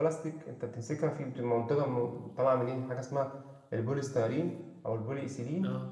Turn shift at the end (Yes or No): No